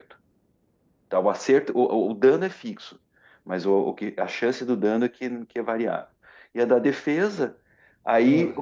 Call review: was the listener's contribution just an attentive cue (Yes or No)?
Yes